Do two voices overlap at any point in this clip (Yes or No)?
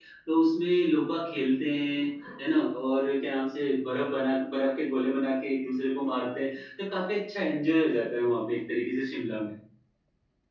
No